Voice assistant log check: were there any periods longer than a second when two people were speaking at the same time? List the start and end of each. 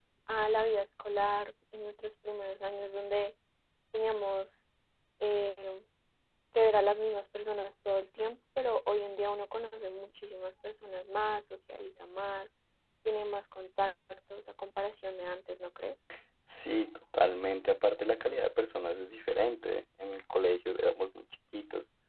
none

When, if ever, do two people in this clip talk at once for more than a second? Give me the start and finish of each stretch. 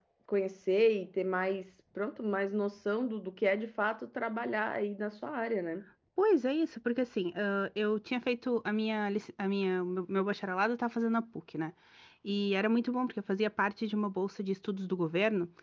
none

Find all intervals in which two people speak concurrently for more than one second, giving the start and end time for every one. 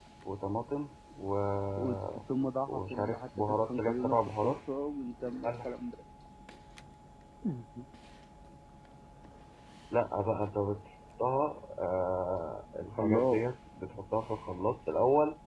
2.7-4.5

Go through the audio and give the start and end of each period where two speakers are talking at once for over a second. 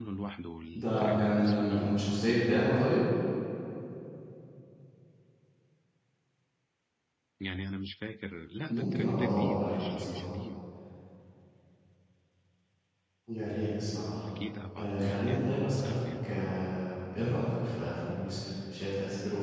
0.7-2.8, 8.7-10.3, 14.8-16.3

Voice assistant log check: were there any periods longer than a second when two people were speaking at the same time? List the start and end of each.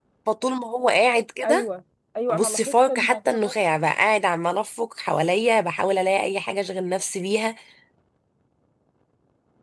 2.3-3.5

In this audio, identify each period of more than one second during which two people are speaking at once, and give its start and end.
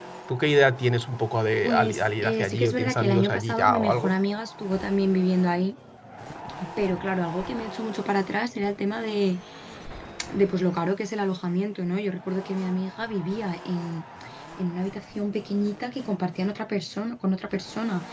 1.6-4.1

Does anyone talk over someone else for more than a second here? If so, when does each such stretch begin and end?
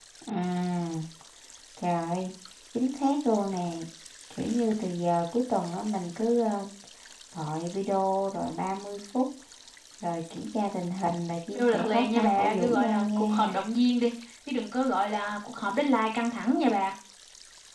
11.5-13.6

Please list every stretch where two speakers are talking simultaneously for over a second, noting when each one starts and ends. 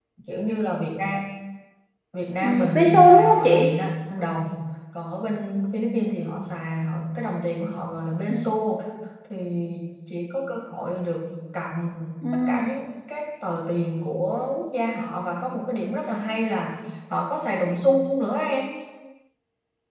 2.4-3.7

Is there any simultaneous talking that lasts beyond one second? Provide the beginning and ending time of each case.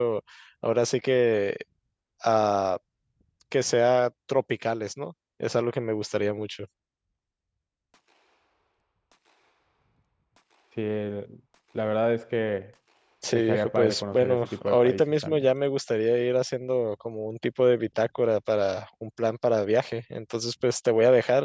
13.3-15.5

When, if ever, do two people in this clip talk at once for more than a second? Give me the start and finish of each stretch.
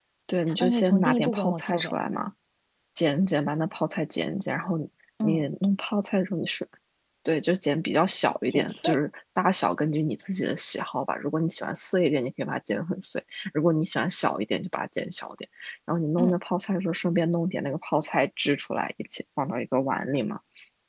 0.6-1.9

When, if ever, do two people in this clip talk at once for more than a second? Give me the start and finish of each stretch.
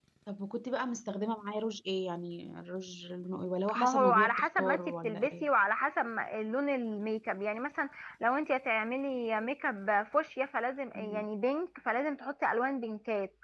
3.8-5.5

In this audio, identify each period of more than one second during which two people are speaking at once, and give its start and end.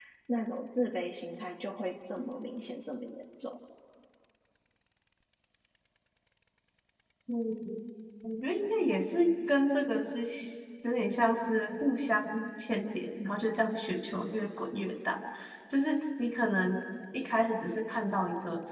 none

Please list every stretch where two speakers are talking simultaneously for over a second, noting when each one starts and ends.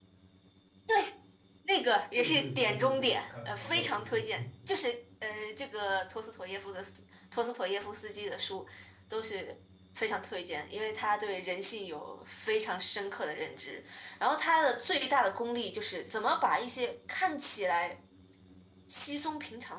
2.2-4.4

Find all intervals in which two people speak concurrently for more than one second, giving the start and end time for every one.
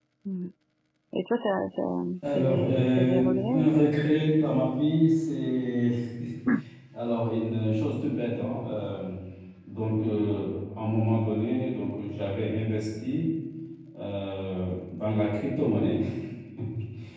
2.3-3.7

